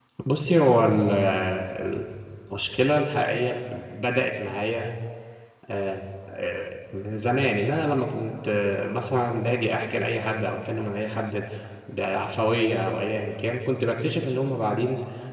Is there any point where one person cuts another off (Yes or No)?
No